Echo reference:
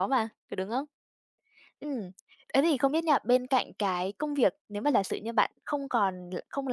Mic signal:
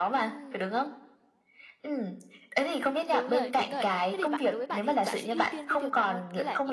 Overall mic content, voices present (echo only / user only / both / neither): both